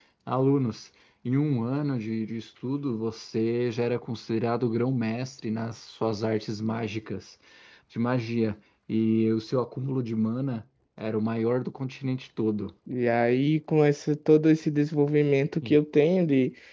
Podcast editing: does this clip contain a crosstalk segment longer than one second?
No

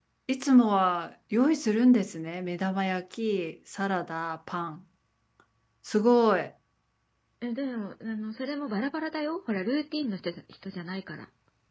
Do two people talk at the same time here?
No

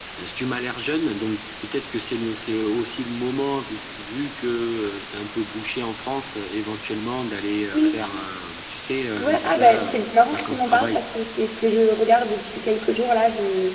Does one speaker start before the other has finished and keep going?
Yes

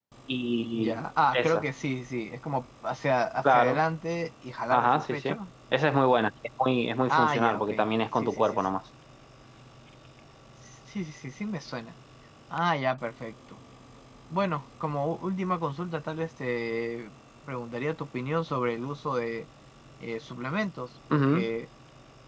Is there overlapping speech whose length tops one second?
Yes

